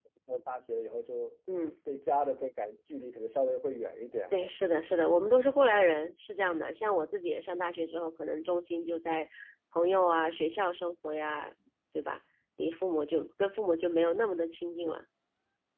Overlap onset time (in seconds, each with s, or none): none